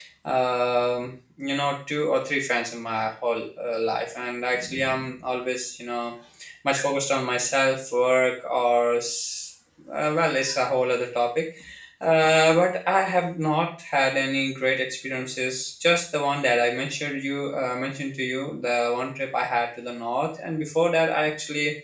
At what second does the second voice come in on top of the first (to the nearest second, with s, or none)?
none